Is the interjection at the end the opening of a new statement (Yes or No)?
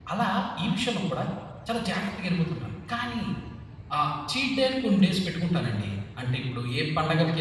No